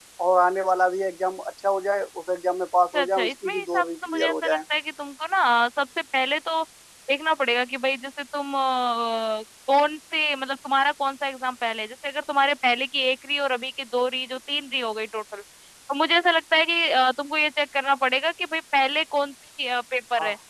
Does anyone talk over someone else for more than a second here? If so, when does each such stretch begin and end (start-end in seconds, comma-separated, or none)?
2.9-4.6